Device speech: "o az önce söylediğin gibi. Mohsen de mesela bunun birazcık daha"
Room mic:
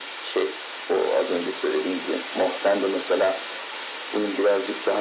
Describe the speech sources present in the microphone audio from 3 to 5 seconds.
echo only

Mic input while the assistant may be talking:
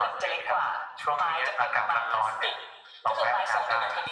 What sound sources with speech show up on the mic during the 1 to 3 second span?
echo only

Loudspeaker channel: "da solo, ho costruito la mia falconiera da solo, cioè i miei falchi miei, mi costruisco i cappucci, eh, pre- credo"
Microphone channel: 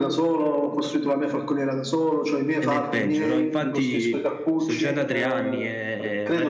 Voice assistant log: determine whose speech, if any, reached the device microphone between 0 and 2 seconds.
echo only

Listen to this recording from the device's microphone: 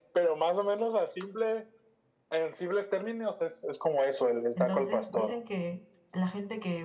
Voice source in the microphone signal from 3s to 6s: both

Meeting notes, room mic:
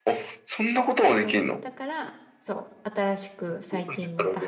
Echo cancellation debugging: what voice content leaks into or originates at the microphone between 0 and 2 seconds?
both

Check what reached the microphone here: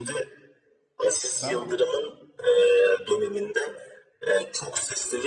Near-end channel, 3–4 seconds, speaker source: echo only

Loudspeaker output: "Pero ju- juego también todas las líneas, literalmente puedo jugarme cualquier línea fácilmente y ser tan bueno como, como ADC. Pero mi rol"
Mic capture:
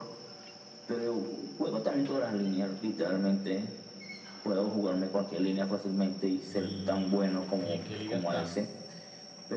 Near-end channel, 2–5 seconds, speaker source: echo only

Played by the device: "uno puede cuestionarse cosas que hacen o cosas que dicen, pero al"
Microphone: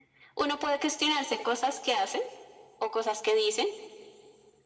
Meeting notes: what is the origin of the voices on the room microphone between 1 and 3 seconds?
echo only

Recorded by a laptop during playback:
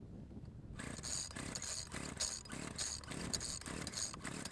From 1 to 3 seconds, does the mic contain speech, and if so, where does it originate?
neither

